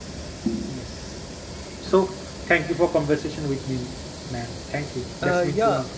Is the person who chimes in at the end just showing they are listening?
No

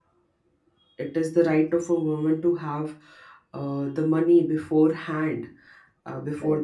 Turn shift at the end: No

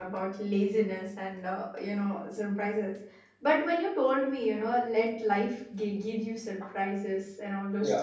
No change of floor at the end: Yes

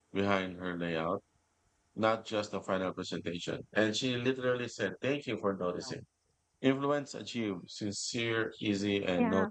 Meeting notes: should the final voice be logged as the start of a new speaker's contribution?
Yes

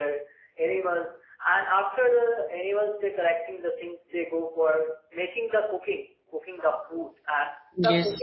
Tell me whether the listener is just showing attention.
Yes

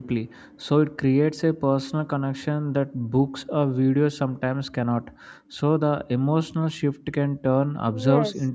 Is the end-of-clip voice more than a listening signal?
Yes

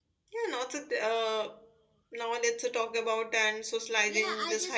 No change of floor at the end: No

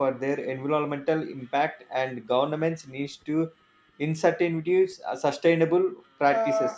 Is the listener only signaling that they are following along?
No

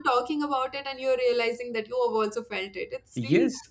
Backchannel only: No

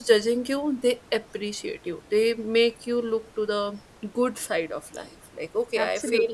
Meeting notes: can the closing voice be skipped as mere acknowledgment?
Yes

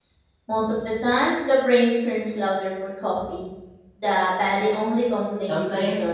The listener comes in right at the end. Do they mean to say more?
Yes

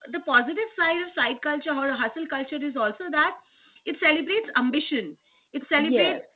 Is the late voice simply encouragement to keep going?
Yes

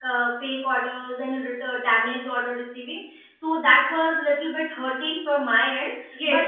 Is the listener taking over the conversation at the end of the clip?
Yes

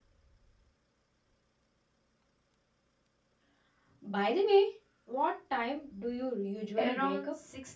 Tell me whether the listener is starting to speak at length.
Yes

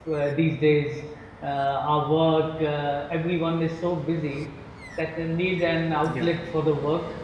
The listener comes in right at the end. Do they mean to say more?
No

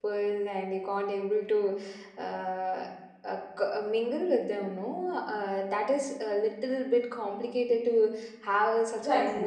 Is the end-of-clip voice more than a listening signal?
Yes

